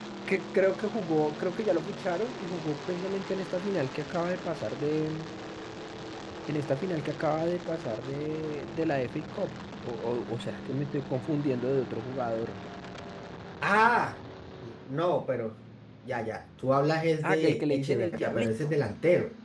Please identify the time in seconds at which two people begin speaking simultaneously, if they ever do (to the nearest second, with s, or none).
17 s